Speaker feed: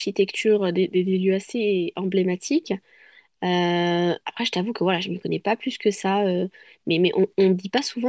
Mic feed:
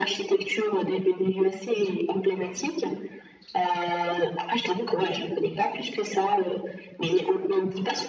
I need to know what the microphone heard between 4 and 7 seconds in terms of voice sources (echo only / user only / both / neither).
echo only